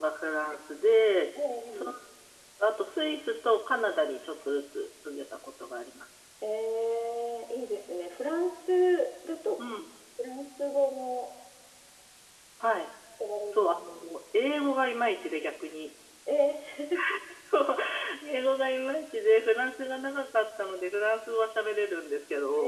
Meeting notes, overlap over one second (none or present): none